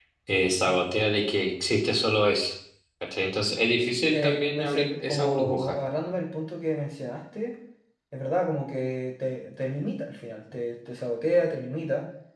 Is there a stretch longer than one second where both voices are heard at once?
Yes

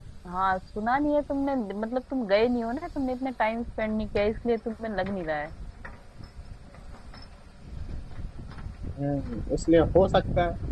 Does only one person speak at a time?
Yes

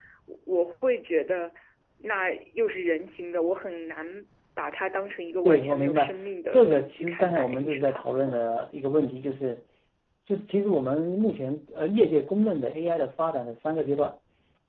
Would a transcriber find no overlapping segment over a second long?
No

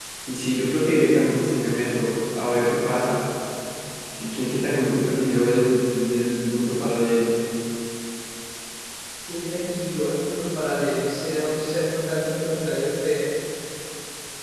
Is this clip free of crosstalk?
Yes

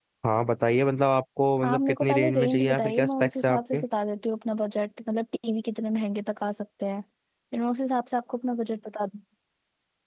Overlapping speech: Yes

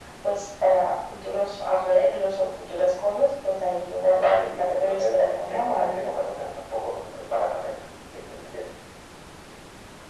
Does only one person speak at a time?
No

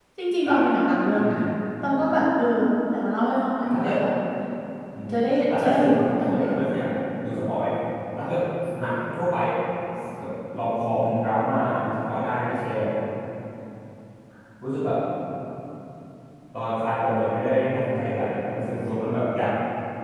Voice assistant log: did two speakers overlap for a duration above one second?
Yes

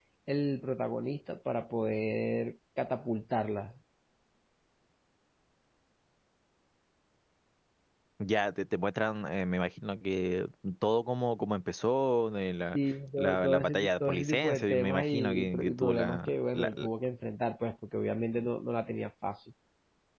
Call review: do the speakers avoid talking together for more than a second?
No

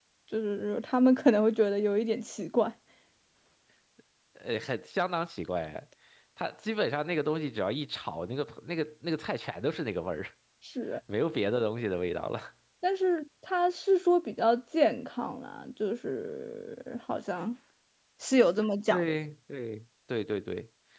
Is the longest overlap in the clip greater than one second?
No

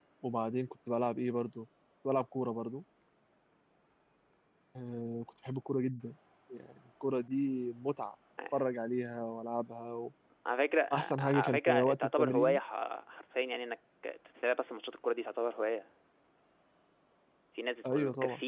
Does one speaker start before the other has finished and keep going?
Yes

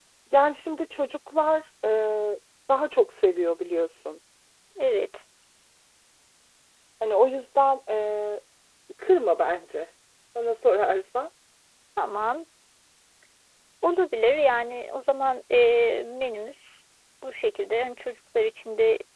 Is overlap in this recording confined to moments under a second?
Yes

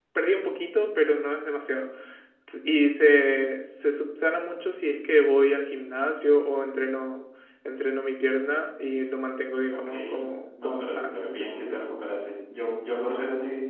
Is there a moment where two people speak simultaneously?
Yes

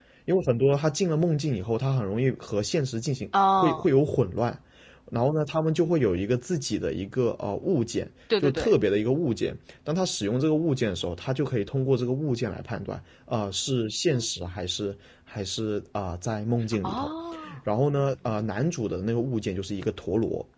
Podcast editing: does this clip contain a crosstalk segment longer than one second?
No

